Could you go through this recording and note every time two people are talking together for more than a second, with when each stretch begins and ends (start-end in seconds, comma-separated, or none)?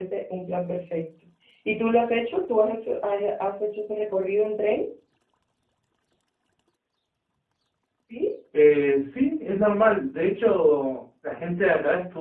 none